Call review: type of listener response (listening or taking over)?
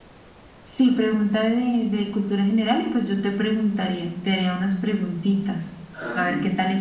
taking over